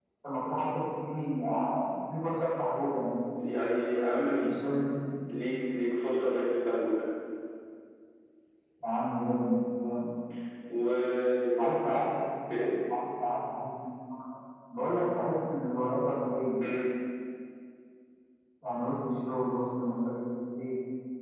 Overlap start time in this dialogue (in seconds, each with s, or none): none